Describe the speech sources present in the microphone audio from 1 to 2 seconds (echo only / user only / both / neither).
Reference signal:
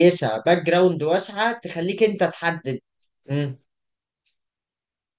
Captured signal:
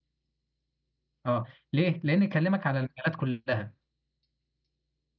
user only